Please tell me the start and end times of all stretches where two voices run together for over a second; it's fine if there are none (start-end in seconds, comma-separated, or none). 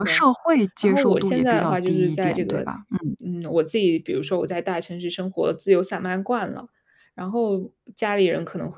0.8-2.7